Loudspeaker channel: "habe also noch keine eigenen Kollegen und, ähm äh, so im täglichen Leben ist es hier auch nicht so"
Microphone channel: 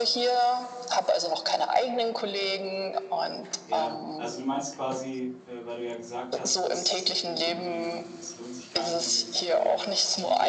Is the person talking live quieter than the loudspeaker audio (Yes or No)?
Yes